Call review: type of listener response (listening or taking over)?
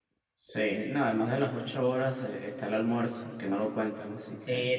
taking over